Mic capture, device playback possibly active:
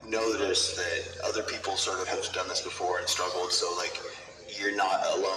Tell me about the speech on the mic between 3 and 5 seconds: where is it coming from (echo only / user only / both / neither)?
echo only